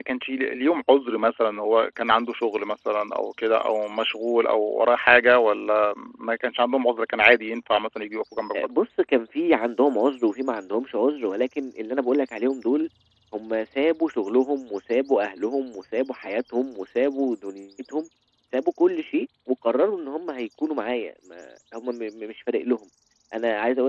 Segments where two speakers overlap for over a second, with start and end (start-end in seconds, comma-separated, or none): none